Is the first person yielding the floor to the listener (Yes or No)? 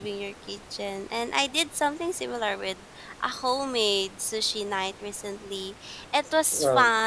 No